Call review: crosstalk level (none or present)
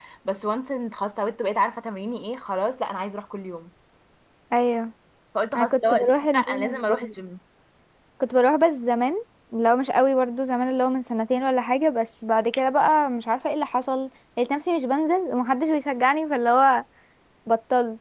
present